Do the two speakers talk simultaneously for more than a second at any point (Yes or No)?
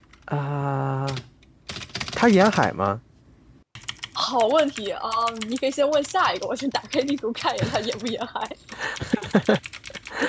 No